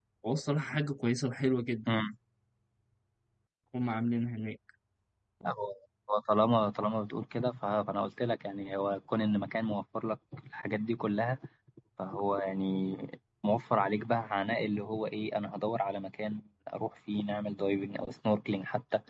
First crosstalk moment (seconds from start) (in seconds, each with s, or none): none